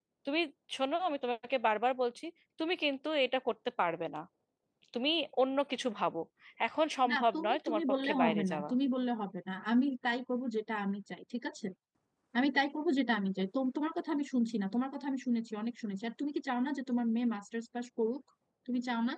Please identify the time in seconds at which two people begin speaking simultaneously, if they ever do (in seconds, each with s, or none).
7.1 s